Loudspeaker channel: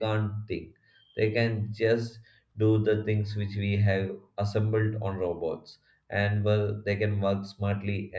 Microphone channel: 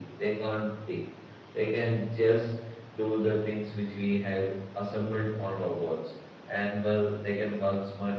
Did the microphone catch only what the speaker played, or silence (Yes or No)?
Yes